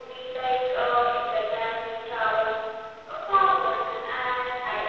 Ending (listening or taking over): taking over